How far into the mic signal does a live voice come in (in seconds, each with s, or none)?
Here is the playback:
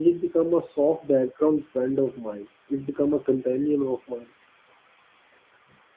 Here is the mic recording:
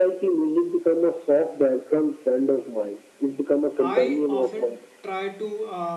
3.8 s